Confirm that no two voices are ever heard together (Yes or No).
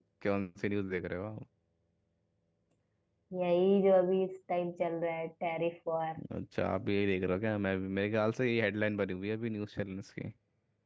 Yes